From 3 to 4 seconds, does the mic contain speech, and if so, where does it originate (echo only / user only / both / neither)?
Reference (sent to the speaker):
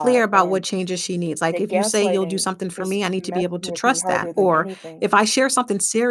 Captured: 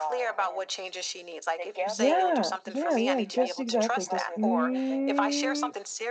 both